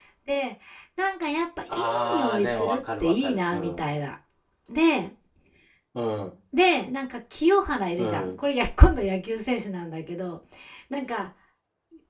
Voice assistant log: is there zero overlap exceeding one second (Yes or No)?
No